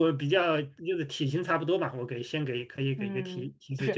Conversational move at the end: taking over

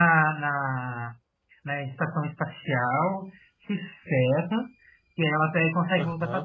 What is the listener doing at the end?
listening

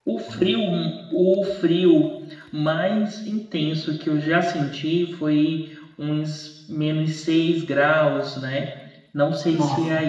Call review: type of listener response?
listening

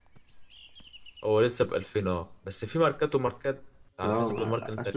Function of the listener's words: taking over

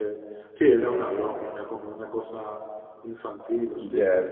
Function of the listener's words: taking over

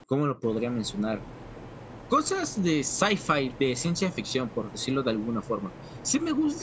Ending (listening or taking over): listening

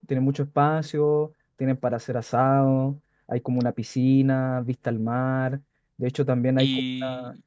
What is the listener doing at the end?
taking over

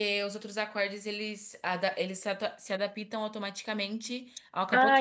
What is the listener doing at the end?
taking over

